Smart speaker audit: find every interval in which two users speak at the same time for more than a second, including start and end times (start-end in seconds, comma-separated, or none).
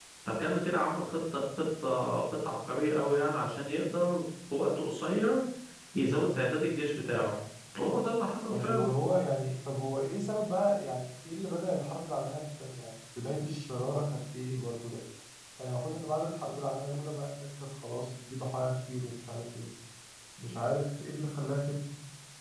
none